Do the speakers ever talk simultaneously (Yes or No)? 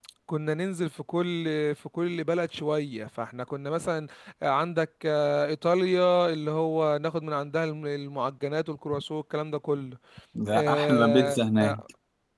Yes